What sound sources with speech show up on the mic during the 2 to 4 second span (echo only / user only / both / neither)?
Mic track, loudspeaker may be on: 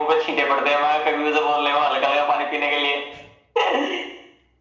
echo only